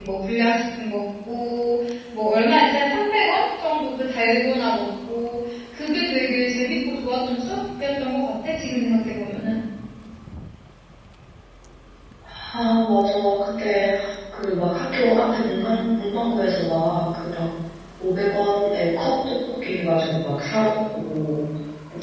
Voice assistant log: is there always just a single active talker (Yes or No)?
Yes